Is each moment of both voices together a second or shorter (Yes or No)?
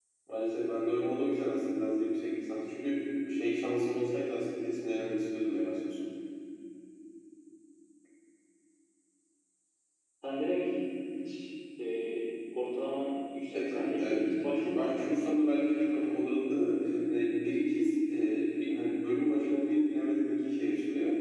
No